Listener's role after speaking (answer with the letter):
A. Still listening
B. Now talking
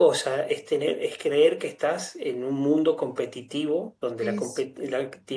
A